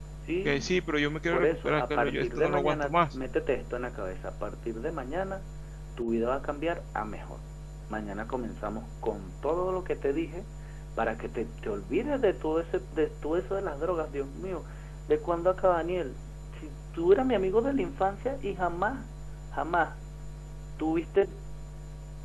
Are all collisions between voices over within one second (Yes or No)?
No